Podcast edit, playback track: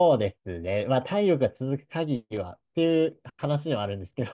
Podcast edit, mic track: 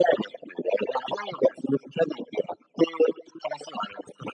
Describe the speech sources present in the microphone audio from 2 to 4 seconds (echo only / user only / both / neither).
echo only